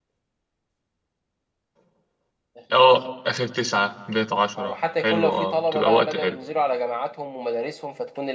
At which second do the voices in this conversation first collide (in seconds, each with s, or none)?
4.6 s